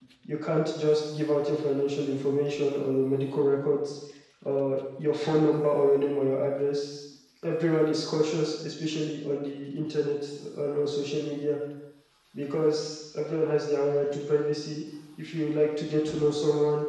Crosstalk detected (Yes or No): No